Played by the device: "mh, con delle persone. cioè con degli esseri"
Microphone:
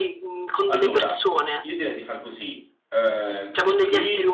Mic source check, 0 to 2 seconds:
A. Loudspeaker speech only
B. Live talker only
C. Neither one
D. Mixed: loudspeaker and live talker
D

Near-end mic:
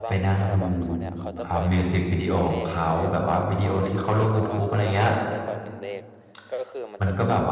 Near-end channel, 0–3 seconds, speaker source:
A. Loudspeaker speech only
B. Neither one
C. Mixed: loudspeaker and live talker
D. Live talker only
C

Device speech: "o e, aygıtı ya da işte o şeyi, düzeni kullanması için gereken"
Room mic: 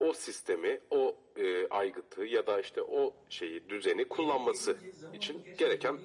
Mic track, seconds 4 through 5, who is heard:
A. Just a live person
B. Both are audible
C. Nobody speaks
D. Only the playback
B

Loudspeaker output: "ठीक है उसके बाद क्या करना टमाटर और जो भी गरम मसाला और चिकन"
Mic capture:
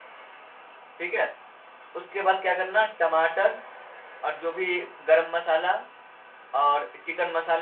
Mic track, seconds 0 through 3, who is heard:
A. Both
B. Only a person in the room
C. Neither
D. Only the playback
D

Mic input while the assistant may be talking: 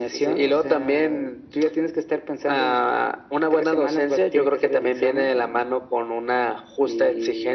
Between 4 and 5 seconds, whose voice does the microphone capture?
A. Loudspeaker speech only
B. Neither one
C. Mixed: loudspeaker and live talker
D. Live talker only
A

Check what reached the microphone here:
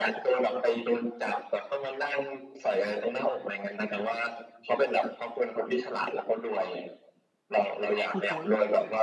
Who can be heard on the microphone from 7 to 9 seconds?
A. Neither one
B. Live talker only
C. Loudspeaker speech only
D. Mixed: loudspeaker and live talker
D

